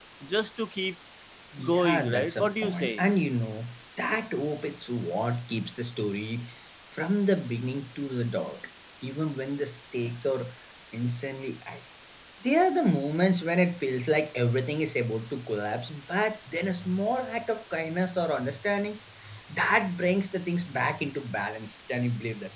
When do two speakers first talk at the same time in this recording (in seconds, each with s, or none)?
1.6 s